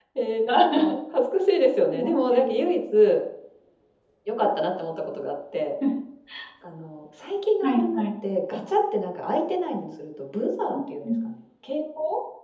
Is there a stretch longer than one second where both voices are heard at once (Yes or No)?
No